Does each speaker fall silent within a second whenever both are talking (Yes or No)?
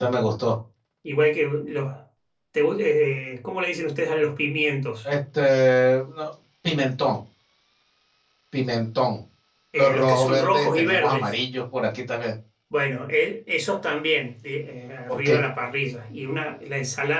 No